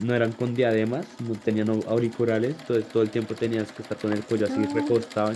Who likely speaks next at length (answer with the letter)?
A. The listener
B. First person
B